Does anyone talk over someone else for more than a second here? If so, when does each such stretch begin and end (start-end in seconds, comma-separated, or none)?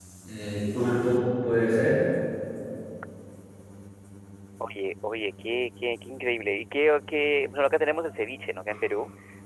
none